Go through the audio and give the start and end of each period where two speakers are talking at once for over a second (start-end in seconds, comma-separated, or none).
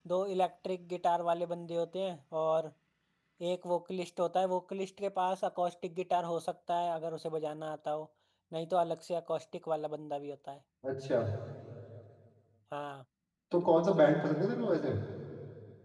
none